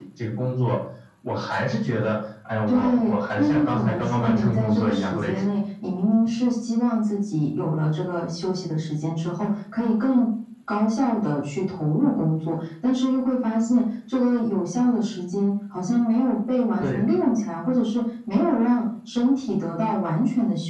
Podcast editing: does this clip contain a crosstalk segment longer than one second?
Yes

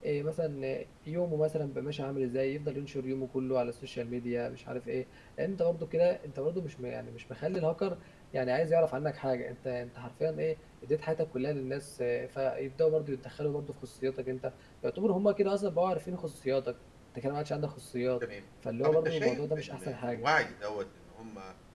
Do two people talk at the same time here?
Yes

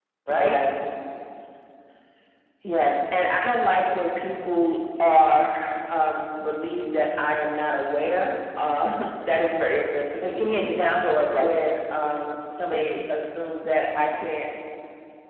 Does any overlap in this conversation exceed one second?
No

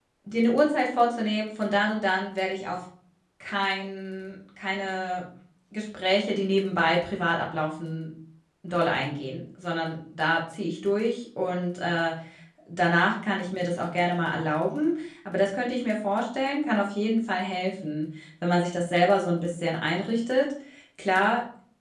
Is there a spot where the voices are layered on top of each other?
No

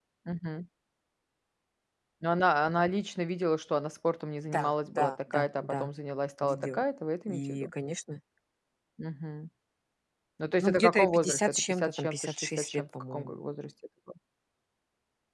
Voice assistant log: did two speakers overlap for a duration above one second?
Yes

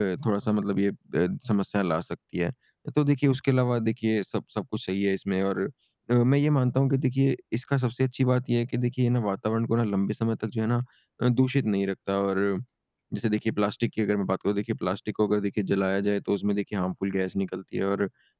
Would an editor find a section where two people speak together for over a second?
No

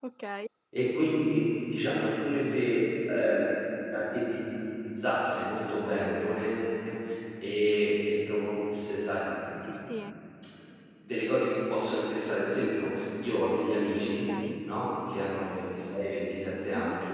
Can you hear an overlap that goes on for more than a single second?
No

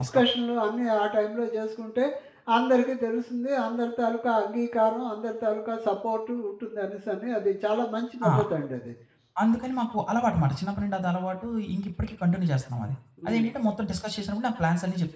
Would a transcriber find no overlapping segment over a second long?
Yes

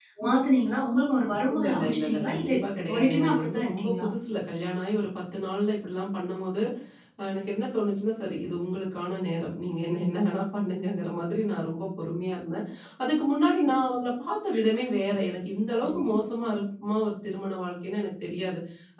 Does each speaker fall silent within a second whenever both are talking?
No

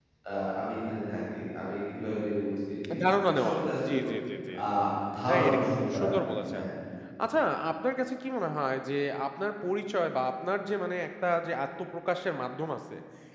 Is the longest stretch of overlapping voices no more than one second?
No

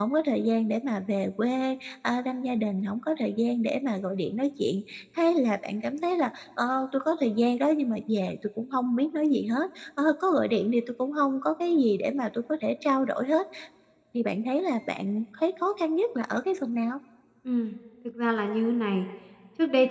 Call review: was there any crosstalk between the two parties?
No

